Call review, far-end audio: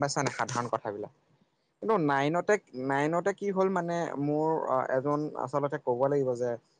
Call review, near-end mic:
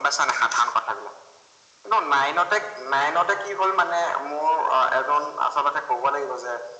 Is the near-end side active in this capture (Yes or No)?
No